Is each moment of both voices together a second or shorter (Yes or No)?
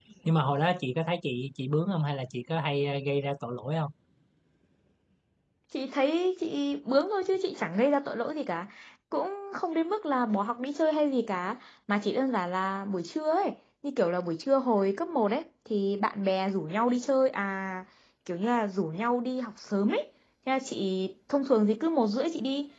Yes